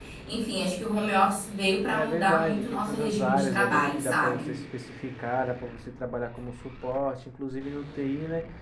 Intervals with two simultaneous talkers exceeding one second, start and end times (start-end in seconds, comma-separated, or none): 1.9-4.5